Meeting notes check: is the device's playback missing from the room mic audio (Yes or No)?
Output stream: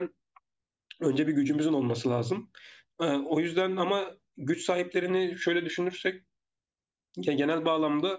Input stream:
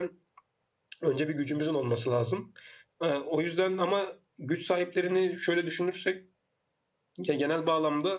No